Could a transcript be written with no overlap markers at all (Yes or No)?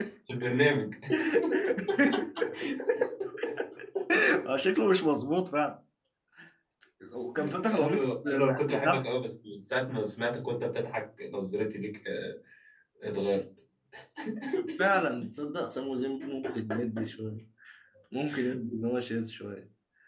No